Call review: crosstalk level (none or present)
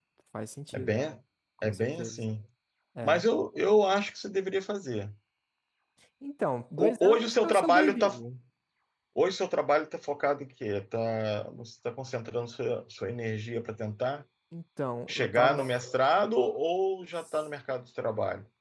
present